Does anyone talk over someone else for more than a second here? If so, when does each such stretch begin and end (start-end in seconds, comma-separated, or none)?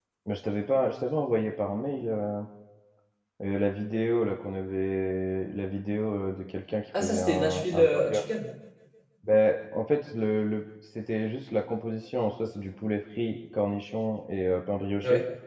7.0-8.2